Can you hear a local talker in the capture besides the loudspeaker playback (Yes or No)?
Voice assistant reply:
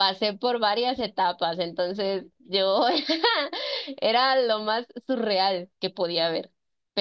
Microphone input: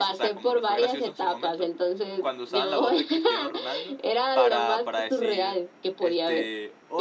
Yes